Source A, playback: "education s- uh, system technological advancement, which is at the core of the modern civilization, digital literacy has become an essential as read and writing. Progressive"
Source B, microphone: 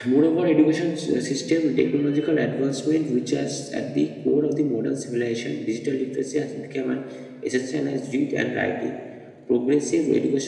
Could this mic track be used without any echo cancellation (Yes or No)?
No